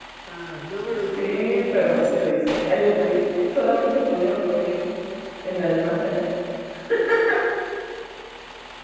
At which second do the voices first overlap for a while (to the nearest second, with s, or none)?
1 s